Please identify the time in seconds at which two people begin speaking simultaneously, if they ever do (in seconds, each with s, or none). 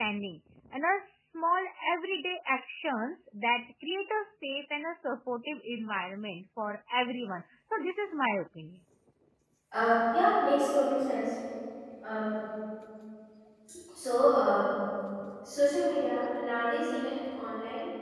none